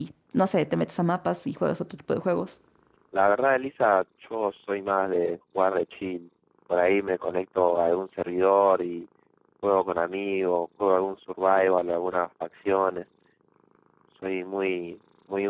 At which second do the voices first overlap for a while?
none

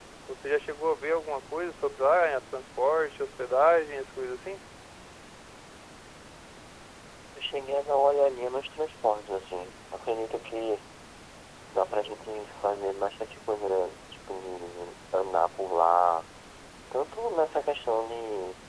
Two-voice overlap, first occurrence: none

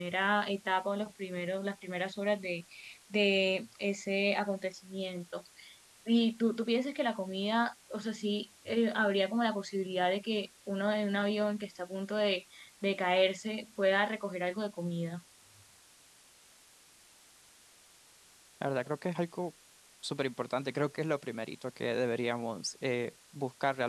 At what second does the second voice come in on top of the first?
none

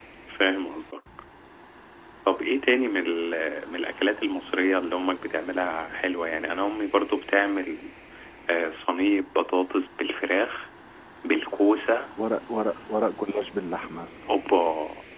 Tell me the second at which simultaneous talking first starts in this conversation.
none

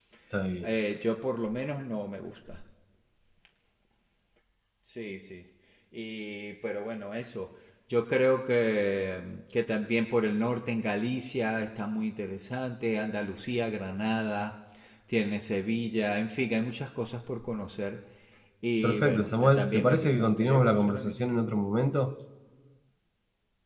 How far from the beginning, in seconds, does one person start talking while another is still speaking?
18.8 s

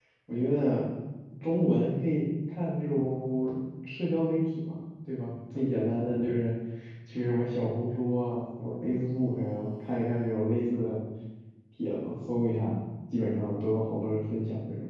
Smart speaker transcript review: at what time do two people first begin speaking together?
none

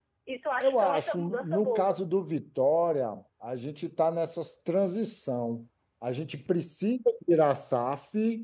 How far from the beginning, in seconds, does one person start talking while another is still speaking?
0.6 s

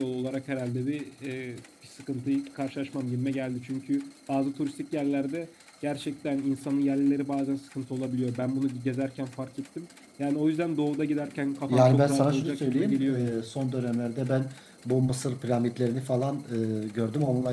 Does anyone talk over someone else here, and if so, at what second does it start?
11.7 s

